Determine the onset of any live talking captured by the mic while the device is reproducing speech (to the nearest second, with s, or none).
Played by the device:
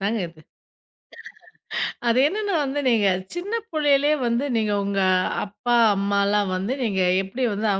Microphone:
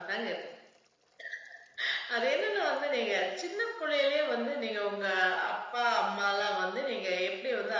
none